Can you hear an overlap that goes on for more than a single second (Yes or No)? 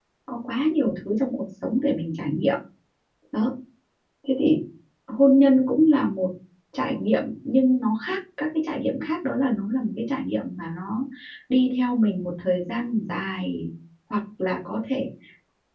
No